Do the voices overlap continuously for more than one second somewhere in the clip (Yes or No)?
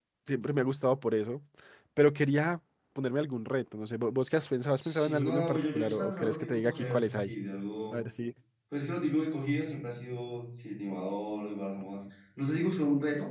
Yes